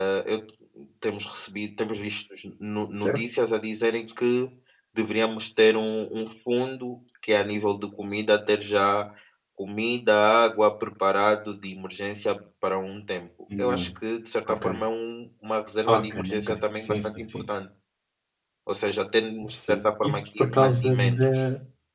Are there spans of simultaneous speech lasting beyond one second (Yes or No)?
Yes